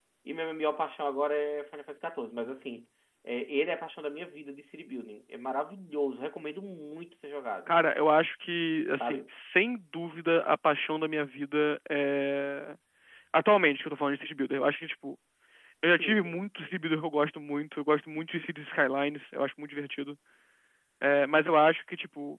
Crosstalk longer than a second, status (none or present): none